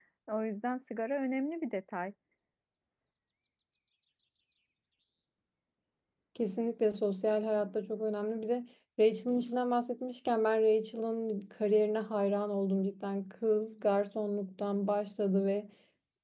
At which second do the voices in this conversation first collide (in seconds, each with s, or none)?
none